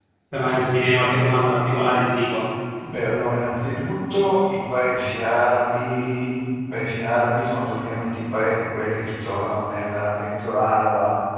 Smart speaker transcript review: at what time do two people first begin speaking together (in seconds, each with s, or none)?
none